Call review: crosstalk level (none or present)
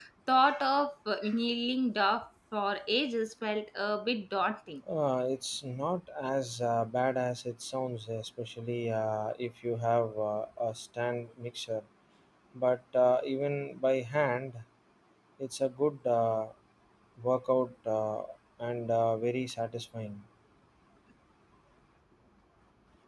none